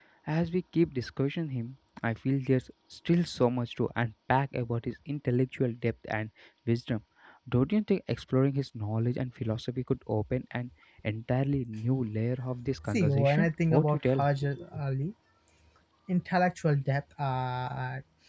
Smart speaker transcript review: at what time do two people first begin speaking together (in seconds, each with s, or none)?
12.7 s